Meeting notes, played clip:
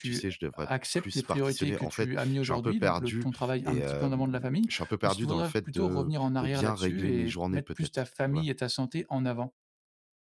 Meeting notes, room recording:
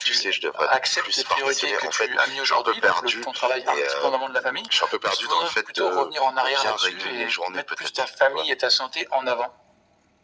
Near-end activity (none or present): none